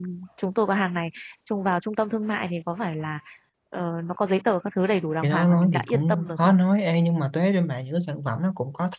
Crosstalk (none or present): present